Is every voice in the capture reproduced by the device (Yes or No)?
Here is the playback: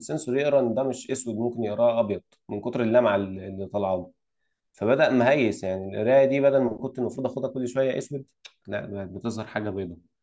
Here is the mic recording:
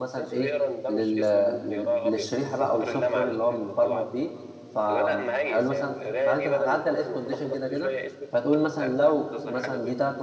No